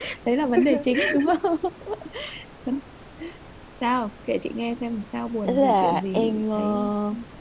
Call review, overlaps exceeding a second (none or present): present